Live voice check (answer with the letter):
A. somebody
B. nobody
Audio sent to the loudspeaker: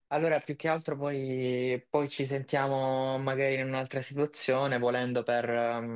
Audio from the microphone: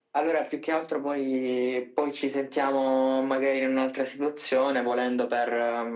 B